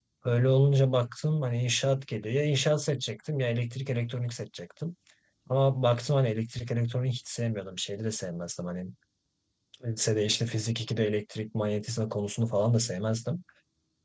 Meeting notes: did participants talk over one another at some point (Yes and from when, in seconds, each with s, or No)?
No